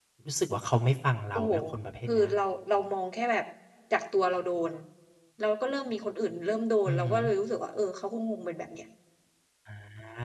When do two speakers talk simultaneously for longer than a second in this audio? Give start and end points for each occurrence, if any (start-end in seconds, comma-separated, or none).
none